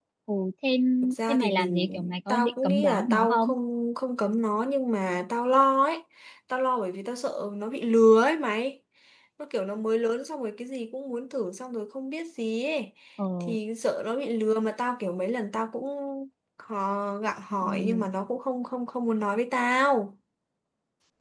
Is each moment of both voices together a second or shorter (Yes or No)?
No